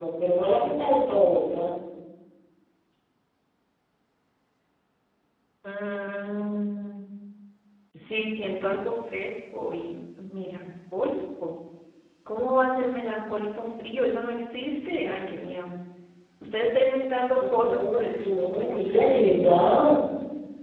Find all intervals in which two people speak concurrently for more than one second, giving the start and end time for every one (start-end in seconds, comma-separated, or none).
17.4-19.2